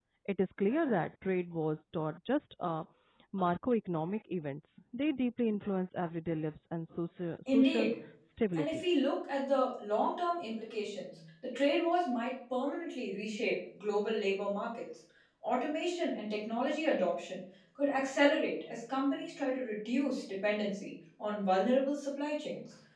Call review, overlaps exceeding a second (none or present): none